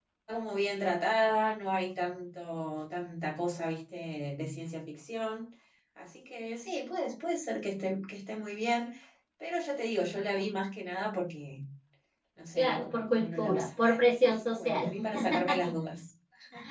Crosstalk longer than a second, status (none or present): present